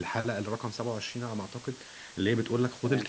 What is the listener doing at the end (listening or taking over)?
listening